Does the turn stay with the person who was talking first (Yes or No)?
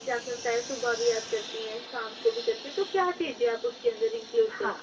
No